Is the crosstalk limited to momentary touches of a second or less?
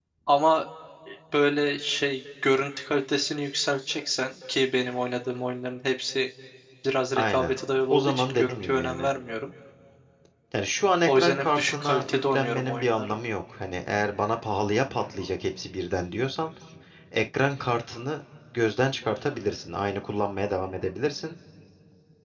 No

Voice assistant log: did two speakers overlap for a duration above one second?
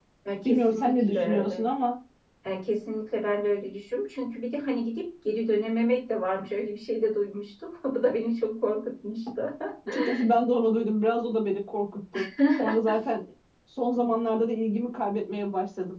Yes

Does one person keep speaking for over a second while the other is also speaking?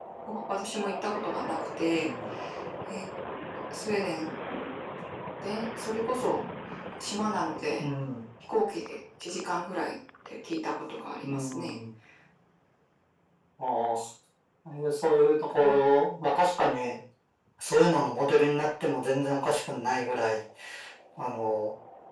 No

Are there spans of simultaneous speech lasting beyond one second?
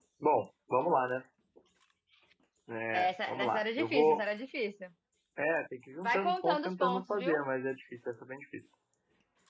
Yes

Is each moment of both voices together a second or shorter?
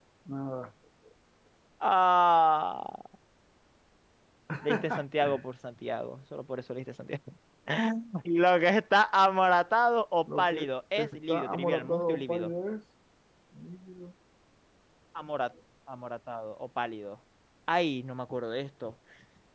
No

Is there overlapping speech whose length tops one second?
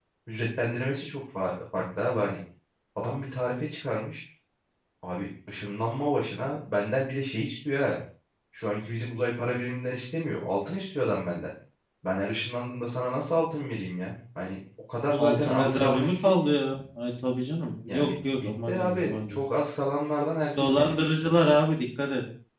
Yes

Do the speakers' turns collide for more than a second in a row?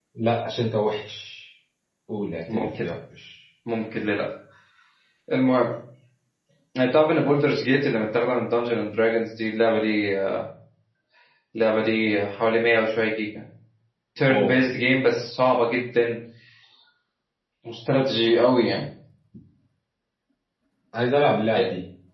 No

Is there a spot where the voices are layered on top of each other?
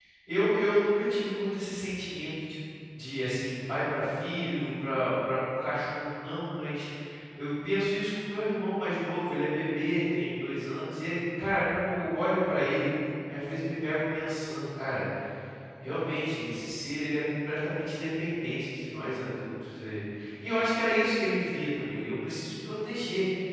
No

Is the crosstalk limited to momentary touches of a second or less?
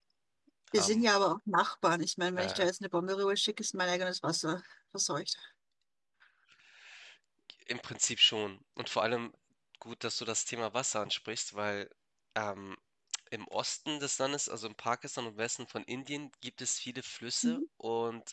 Yes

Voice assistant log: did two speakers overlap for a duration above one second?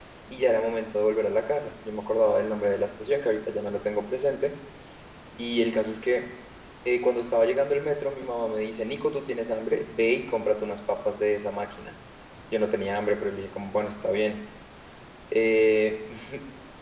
No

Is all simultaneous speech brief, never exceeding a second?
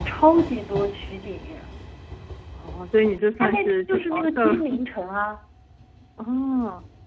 No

